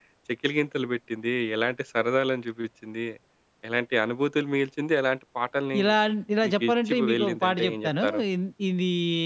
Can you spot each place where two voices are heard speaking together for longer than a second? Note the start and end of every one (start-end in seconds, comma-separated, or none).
6.5-8.2